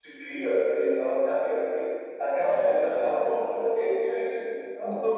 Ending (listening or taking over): taking over